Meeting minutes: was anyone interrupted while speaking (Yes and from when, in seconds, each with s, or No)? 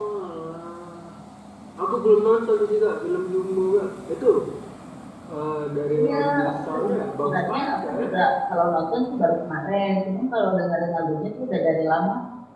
Yes, from 6.0 s